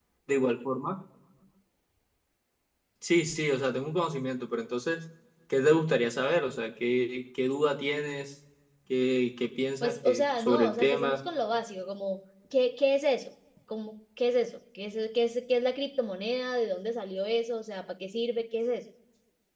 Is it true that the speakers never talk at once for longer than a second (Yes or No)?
No